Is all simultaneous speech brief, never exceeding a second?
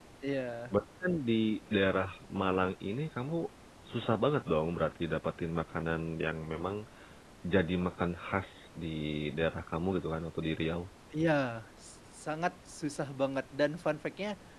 Yes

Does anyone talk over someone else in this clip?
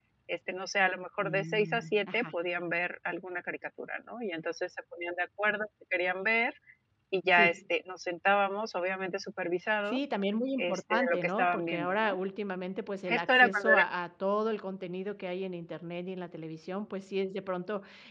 Yes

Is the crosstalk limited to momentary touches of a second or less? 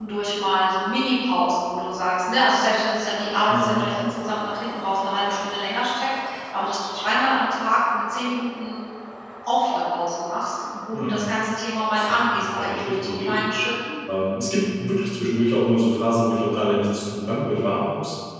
No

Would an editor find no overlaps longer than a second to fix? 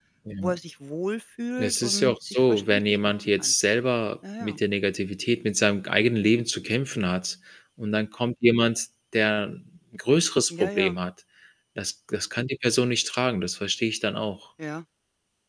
No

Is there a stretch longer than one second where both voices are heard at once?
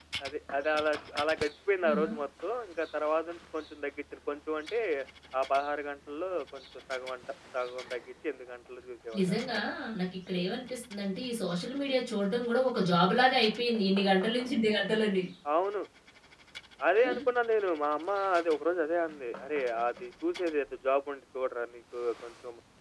No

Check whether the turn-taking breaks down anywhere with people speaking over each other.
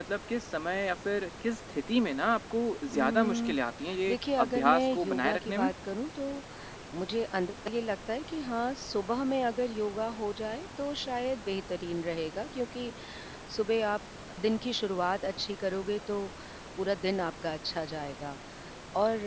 Yes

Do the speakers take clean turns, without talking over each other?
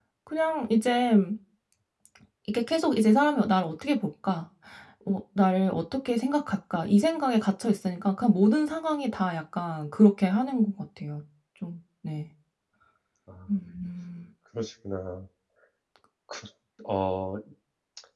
Yes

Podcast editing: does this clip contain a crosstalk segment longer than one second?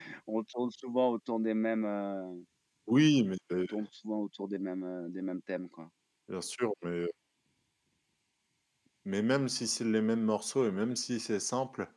No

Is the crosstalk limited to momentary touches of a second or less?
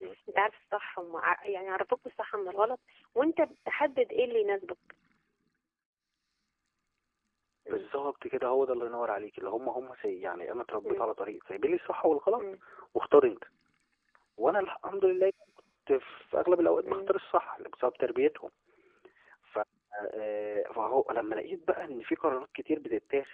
Yes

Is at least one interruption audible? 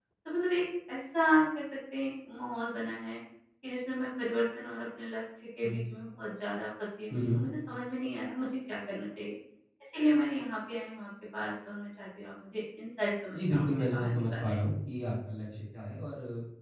Yes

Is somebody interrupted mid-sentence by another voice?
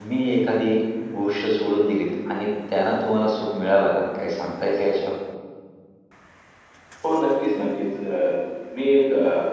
No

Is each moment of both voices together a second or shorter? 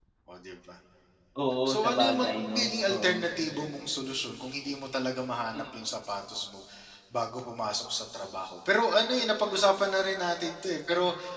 No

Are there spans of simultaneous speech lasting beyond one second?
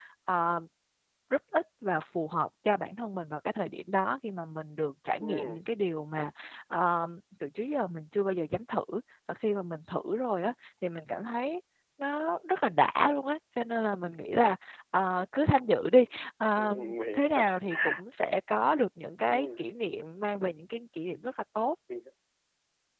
No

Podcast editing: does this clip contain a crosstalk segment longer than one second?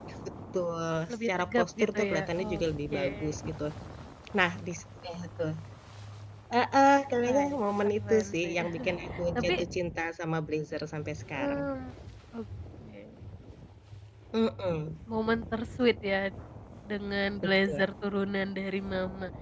Yes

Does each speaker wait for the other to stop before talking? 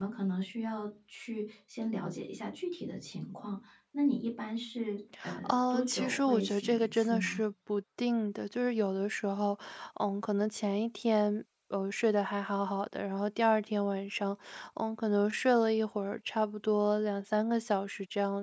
No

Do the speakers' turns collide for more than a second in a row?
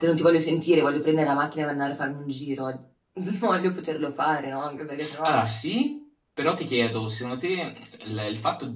No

